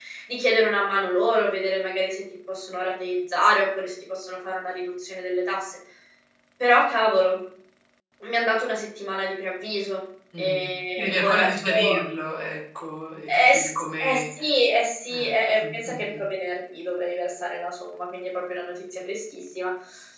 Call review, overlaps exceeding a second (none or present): present